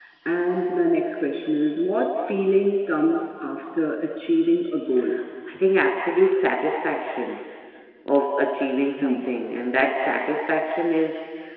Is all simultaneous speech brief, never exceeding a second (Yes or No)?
Yes